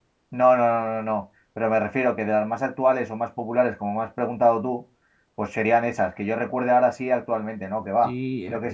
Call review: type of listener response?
taking over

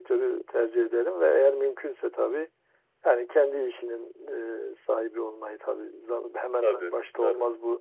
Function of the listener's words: listening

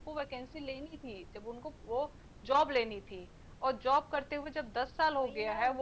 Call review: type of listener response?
listening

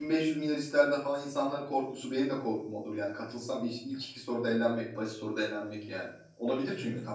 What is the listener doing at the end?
taking over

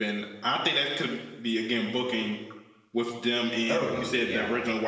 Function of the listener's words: listening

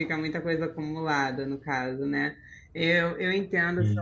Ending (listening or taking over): listening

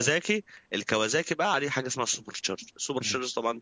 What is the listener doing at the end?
listening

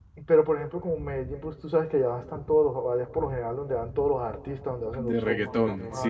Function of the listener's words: taking over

